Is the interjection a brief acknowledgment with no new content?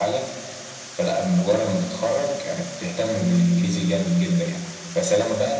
Yes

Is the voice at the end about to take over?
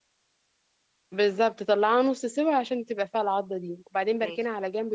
No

